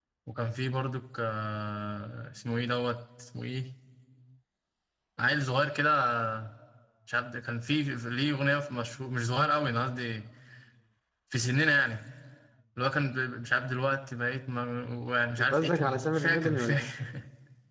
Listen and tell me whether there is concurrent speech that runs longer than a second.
Yes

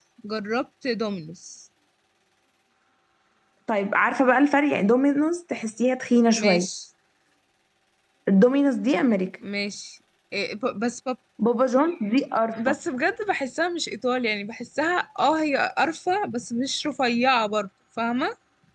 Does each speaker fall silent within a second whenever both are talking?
Yes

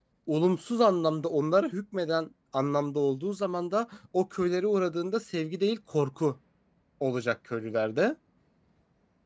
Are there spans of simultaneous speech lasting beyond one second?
No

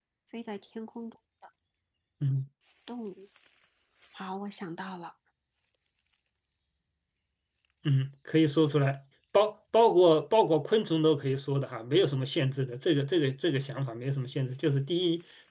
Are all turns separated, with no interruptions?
Yes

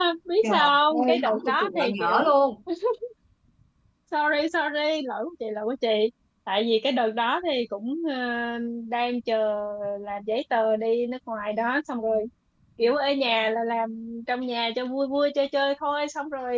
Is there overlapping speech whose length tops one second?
Yes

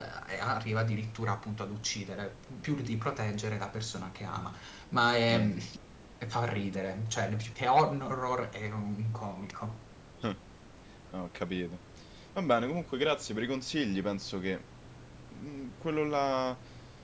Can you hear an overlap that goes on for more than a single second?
No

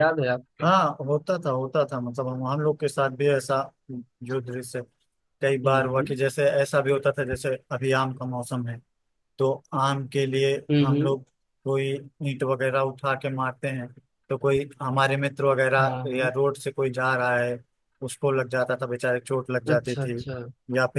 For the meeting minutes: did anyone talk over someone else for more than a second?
No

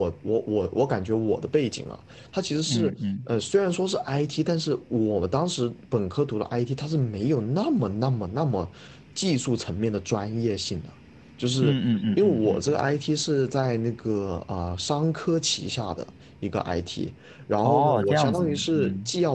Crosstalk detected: Yes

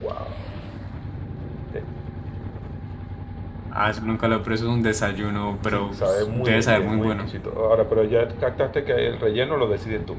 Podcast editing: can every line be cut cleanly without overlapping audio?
No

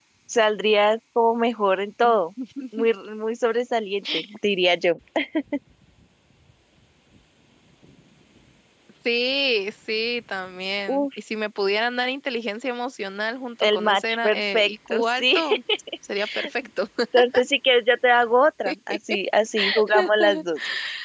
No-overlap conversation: No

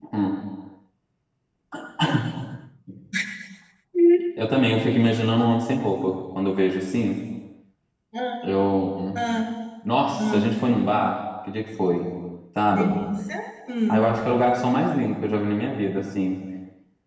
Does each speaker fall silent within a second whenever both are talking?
Yes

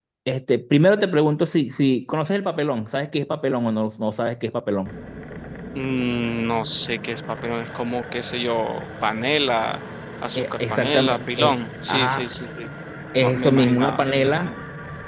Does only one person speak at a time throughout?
No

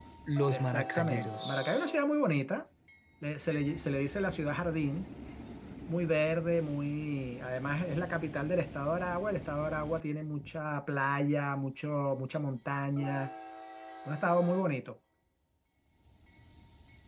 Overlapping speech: Yes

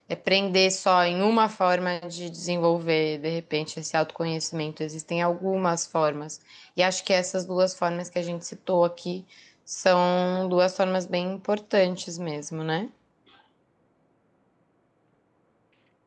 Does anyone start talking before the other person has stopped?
No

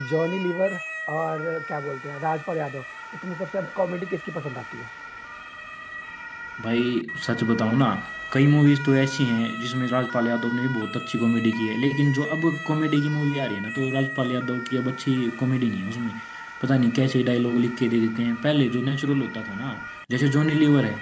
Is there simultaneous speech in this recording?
No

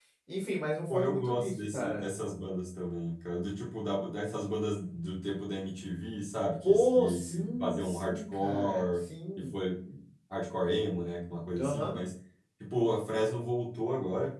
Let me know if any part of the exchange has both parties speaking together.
Yes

